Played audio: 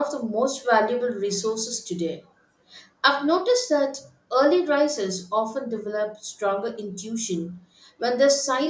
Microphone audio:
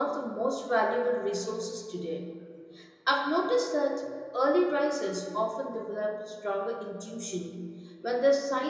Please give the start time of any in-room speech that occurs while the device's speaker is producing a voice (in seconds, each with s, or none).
none